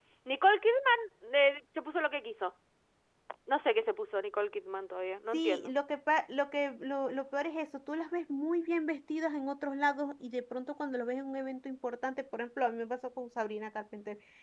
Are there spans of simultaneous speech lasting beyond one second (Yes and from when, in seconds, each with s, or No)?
No